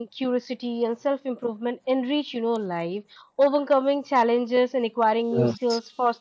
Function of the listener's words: listening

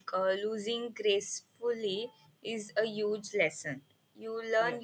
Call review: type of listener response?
listening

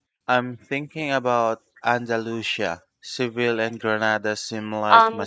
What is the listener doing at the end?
taking over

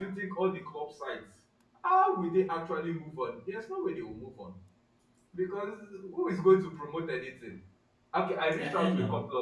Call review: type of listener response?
listening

